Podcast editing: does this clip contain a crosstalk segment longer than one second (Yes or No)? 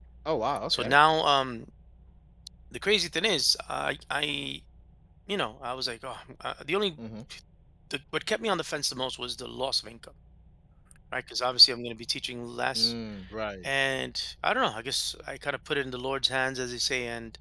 No